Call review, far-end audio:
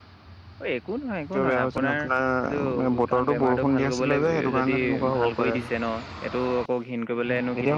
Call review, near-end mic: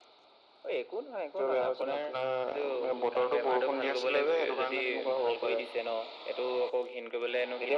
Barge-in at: none

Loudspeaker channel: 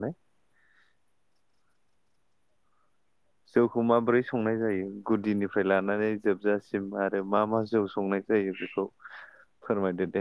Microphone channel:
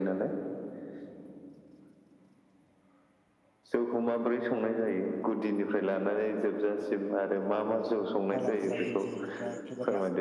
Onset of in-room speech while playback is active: 8.3 s

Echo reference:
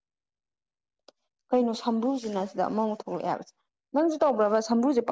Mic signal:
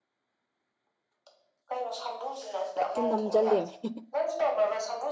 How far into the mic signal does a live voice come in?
2.8 s

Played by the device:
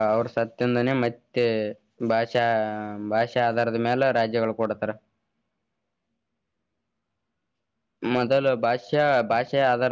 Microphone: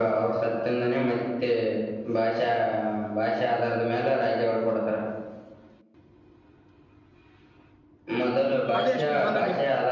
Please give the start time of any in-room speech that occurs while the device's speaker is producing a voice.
8.8 s

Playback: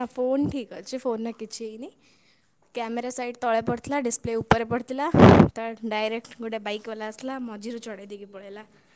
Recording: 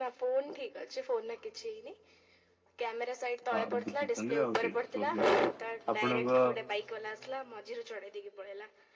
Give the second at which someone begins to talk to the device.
3.5 s

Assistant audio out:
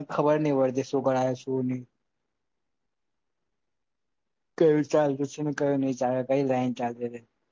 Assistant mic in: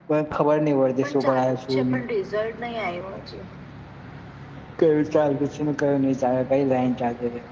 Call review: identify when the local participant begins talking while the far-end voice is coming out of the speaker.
1.0 s

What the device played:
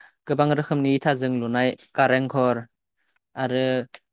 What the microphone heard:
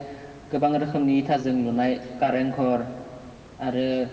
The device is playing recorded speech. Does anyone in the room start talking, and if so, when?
none

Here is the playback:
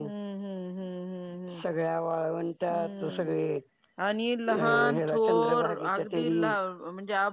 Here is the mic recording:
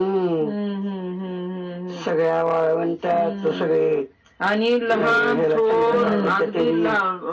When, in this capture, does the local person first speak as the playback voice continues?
5.9 s

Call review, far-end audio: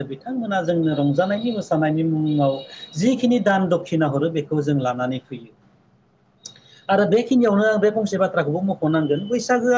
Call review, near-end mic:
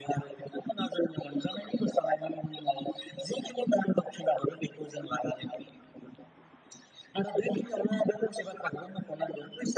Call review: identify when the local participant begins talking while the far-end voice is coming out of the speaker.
none

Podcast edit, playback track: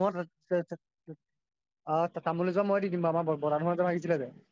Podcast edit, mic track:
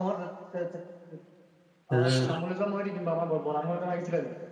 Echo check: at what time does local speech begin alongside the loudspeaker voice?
1.9 s

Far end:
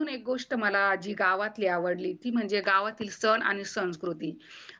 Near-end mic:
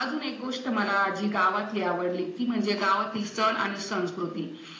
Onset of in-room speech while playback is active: none

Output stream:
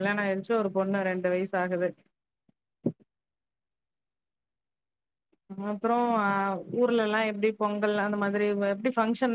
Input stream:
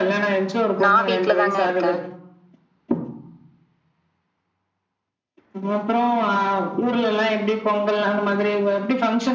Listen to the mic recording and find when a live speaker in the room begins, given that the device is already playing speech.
0.8 s

